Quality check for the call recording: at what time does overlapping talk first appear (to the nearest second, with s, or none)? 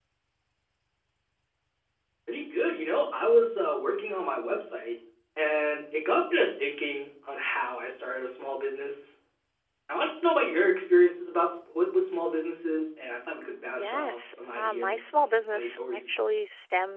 14 s